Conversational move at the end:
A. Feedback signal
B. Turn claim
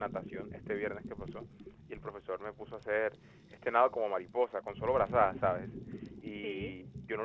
A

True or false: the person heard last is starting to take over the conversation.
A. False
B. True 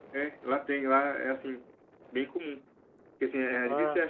A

